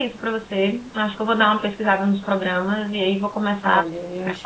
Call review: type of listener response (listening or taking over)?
taking over